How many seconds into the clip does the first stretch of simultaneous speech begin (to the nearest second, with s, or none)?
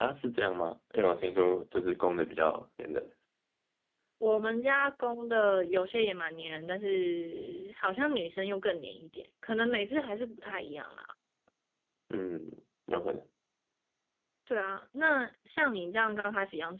none